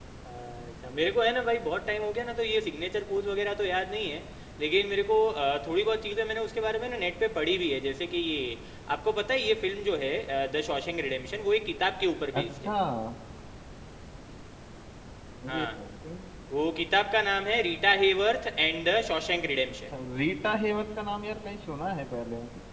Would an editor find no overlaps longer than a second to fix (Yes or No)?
Yes